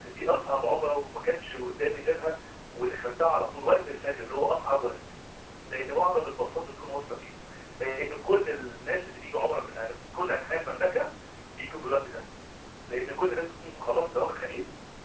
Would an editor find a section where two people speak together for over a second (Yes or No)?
No